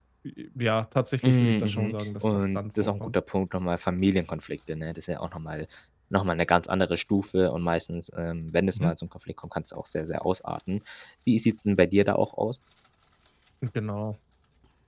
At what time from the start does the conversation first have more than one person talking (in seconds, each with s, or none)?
1.2 s